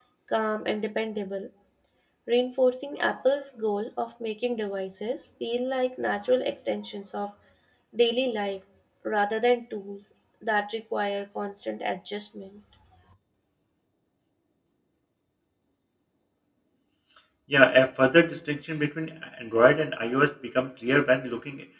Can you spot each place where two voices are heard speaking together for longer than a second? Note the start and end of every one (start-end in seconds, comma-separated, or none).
none